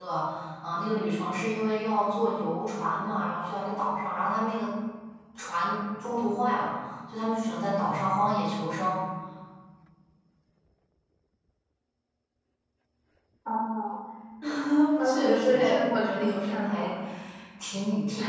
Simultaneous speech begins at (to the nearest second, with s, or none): 15 s